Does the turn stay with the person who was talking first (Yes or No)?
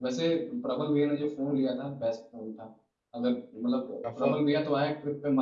Yes